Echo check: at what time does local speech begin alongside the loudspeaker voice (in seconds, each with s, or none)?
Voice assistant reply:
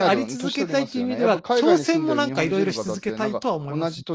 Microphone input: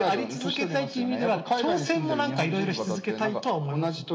none